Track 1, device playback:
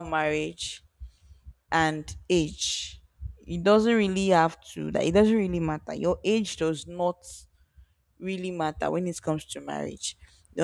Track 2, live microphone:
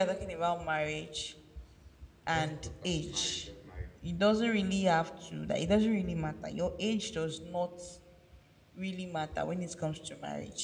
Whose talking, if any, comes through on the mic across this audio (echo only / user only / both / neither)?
both